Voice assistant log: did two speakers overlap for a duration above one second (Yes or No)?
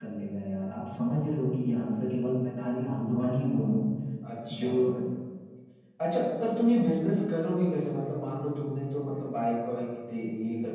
No